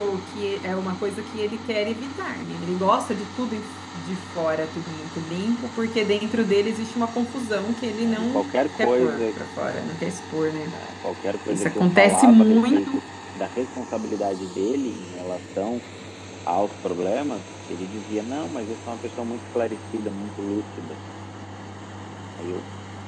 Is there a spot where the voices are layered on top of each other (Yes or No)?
Yes